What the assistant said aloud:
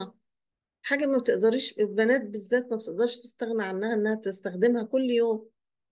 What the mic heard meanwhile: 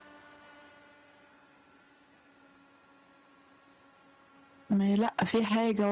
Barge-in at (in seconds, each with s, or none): 4.7 s